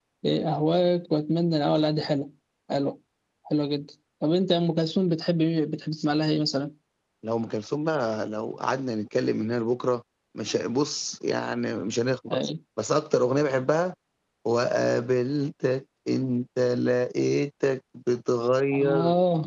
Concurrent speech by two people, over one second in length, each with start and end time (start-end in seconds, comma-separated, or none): none